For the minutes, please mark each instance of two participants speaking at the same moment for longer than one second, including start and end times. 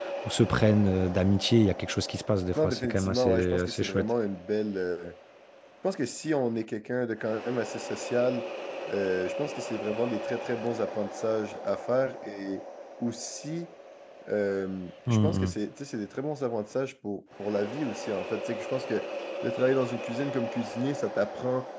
2.5-4.1

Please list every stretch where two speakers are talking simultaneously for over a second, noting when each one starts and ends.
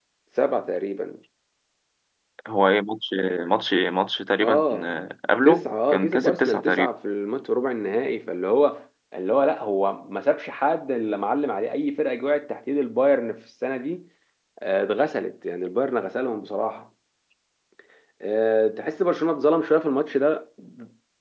5.4-6.9

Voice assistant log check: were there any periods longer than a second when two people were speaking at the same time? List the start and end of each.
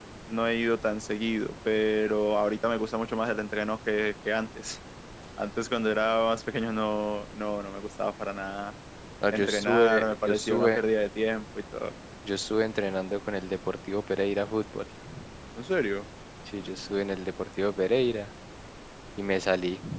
9.3-10.8

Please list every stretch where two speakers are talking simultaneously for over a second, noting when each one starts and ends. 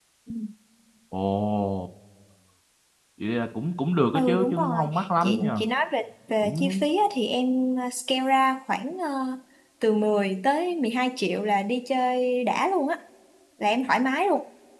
4.1-5.6

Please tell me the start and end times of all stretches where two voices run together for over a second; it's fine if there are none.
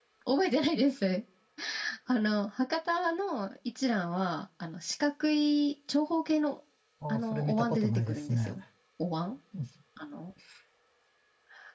7.1-8.6

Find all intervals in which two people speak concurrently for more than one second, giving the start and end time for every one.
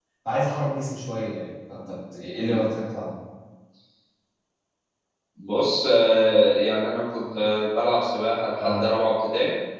none

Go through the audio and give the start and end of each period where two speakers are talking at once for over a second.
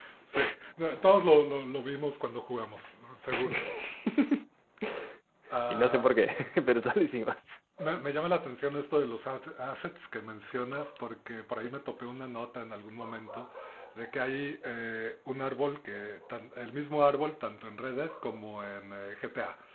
none

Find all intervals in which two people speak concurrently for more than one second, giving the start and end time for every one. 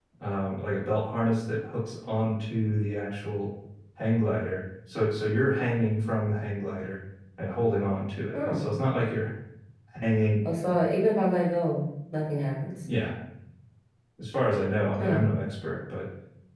none

